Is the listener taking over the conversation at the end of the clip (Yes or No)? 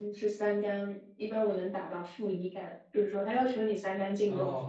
Yes